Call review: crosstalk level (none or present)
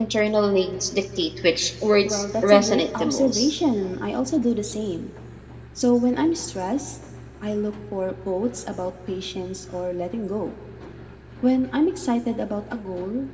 present